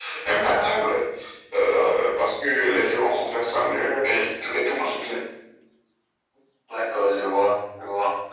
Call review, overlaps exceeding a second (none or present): none